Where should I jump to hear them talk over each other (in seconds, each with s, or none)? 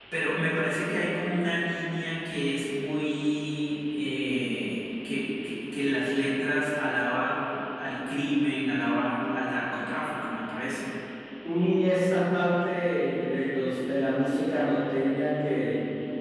none